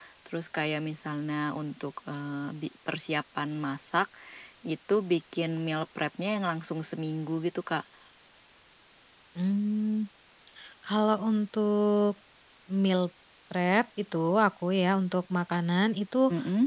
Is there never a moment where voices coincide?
Yes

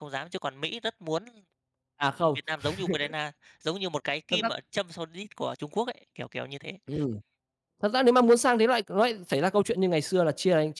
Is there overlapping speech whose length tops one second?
No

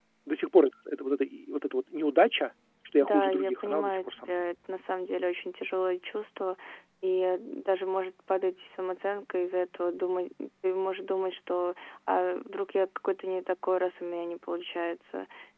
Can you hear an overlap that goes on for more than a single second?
Yes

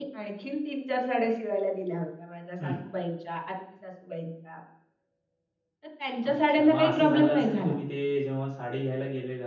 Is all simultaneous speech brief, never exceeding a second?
No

